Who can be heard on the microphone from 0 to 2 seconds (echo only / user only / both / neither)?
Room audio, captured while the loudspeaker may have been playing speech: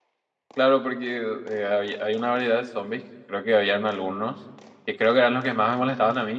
user only